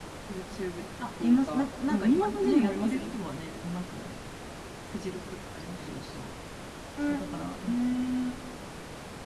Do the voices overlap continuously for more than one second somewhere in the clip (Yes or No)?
Yes